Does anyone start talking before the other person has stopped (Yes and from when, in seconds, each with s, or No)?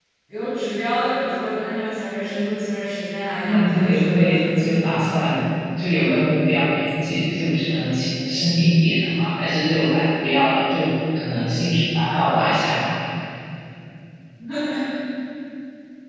Yes, from 3.4 s